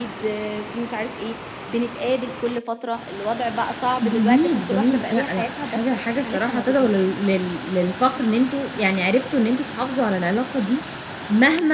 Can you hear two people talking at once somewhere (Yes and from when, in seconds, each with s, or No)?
Yes, from 4.0 s